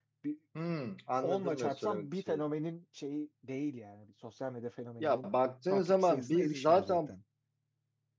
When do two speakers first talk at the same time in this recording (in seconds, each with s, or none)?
1.2 s